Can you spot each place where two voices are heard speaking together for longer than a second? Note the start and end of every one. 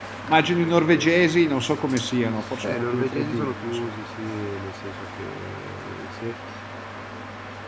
2.6-3.9

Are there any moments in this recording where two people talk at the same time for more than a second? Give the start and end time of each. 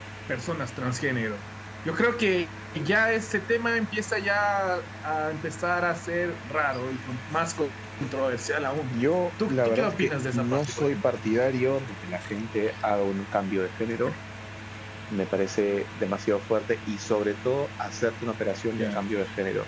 9.5-11.0

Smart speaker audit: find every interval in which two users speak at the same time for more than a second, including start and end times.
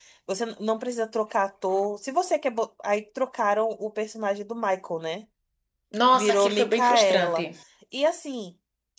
6.1-7.4

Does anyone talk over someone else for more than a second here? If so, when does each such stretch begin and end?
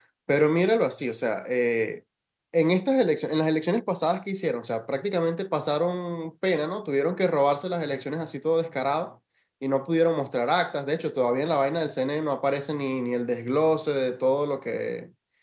none

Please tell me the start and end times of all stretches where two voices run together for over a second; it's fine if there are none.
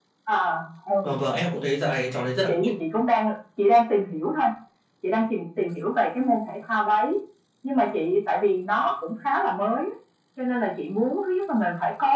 none

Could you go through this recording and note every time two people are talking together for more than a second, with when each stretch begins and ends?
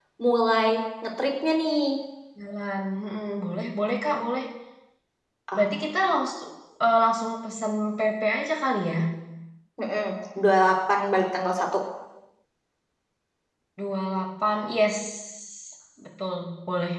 none

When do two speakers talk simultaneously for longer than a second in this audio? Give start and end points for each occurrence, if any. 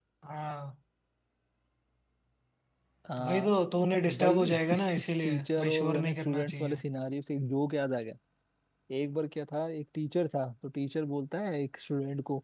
4.2-6.8

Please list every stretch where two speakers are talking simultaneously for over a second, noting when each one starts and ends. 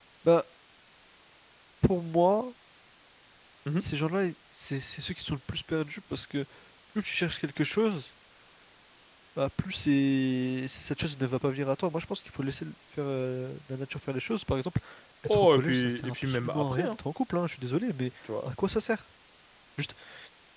15.2-17.0

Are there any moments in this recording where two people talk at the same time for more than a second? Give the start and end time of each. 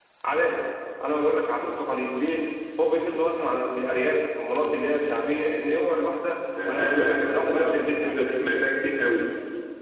6.7-8.2

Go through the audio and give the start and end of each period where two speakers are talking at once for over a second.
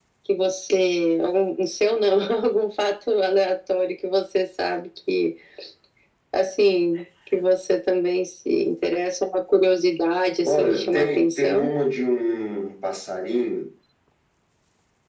10.4-11.7

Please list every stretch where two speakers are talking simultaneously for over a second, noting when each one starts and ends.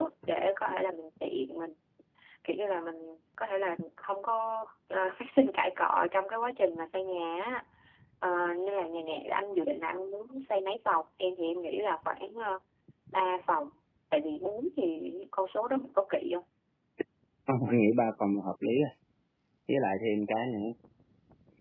none

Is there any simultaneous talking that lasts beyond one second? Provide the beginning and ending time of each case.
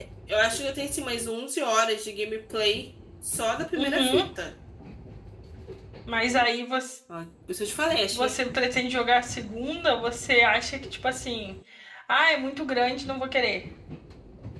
none

